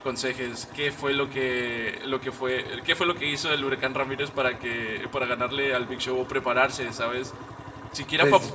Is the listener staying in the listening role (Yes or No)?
Yes